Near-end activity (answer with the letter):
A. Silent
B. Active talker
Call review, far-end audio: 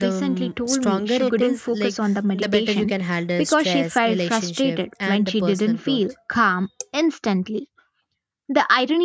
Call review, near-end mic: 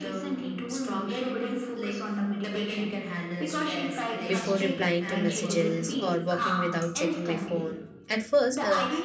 B